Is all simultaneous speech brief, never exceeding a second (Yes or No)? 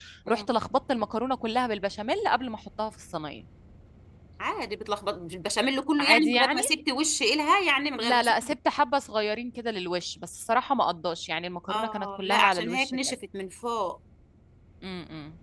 No